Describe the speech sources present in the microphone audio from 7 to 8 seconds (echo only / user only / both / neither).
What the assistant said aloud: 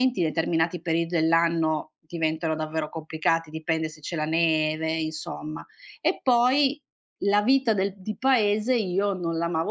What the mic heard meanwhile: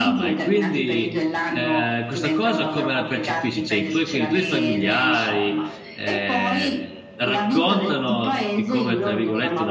both